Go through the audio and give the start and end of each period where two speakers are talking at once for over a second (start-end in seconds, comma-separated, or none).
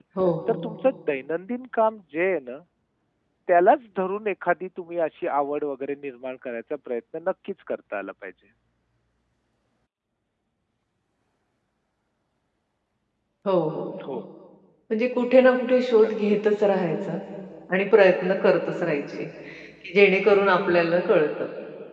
none